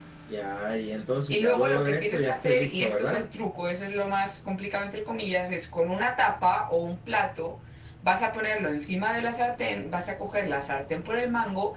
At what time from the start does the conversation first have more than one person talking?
1 s

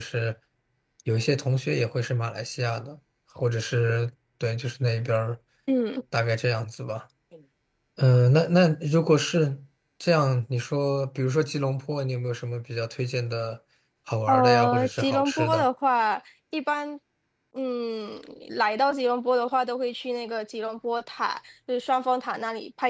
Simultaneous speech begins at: 14 s

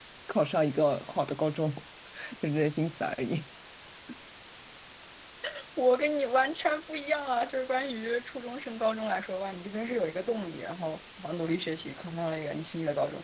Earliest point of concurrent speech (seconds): none

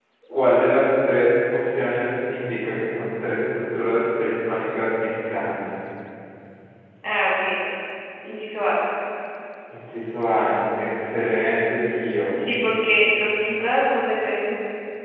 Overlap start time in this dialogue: none

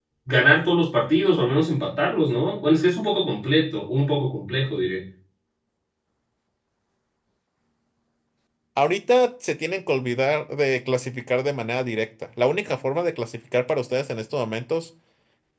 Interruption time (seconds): none

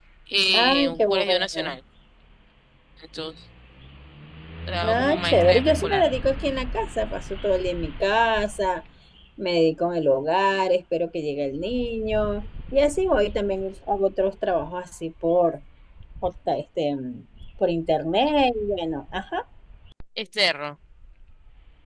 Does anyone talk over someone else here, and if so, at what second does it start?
1 s

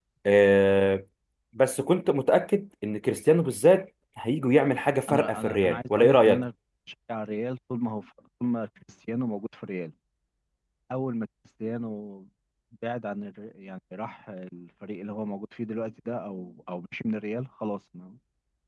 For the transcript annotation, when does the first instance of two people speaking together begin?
5 s

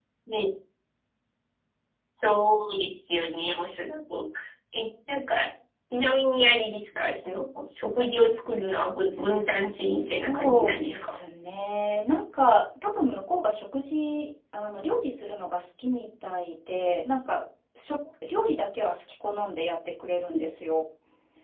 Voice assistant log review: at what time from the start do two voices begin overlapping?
10 s

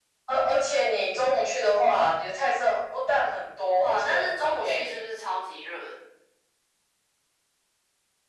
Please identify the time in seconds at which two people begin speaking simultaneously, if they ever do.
4 s

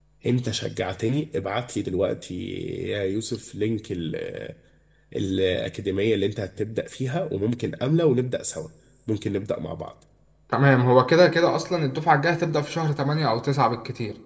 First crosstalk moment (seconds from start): none

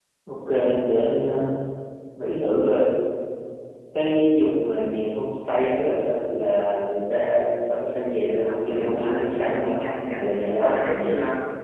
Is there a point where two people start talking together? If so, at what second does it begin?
8 s

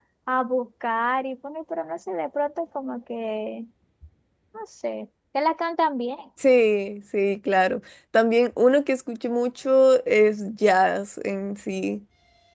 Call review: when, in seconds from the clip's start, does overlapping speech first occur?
none

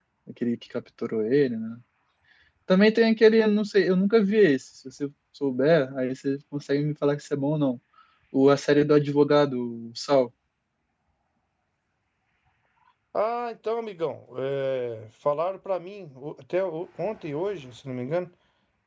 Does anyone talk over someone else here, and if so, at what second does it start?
none

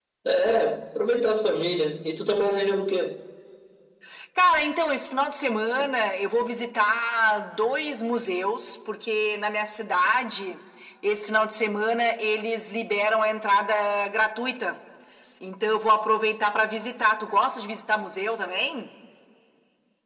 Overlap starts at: none

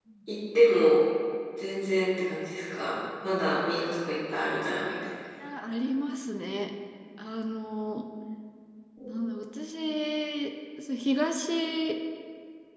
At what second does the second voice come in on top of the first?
none

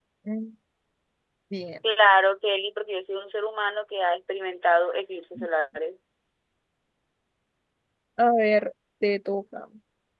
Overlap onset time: none

